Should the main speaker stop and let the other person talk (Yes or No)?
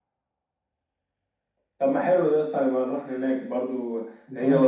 No